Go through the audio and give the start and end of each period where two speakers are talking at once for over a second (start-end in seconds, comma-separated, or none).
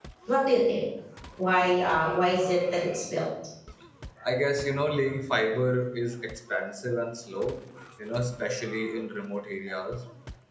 none